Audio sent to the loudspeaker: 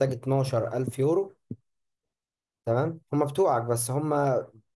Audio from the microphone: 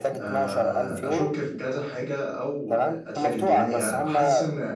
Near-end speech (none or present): present